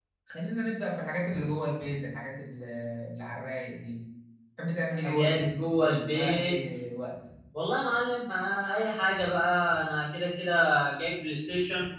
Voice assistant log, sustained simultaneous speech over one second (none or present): present